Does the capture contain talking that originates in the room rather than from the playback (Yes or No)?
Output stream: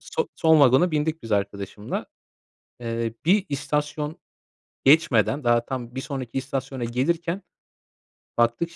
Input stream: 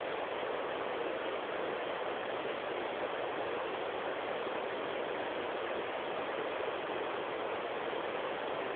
No